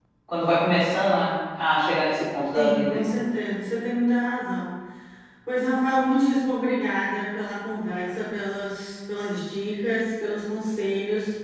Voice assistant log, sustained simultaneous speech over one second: none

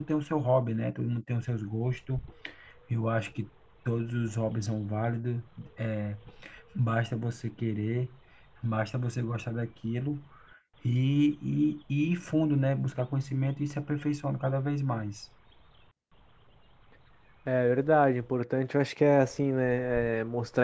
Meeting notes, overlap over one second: none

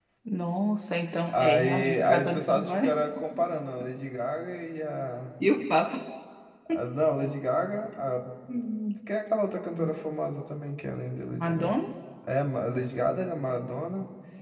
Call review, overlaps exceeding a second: present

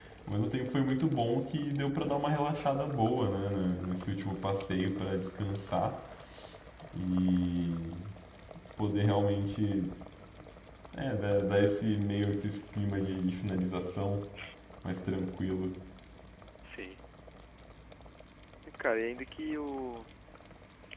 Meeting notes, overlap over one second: none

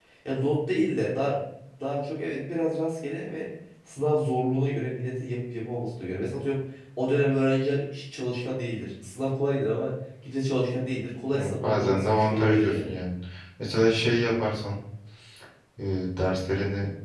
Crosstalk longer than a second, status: present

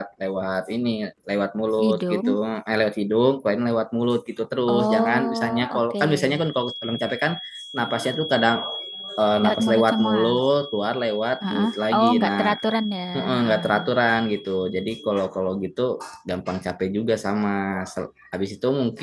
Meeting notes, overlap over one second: present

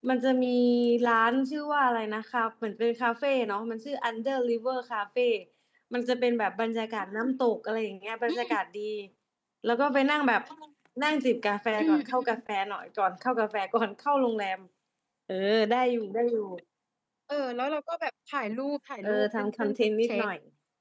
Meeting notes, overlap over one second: present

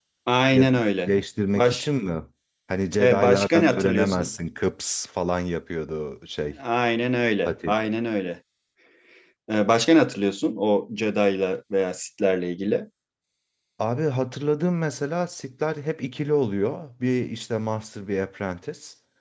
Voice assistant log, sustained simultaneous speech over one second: present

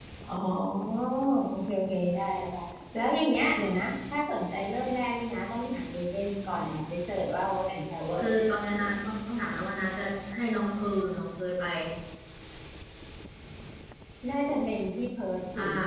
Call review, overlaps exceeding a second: none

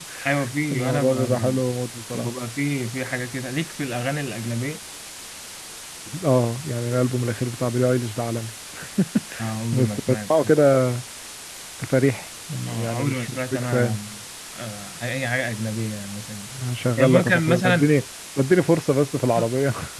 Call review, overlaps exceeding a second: present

